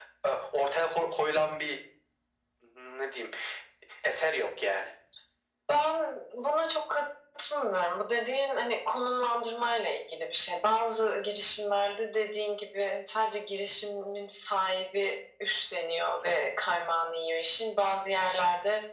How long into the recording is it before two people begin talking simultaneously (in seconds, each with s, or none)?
none